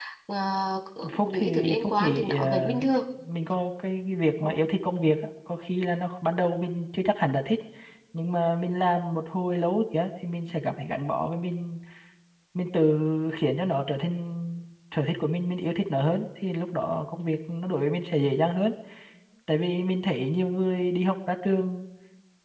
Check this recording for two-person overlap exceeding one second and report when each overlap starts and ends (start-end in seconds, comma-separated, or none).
1.2-2.8